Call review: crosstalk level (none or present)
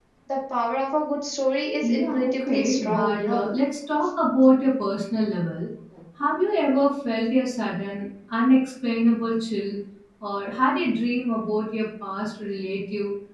present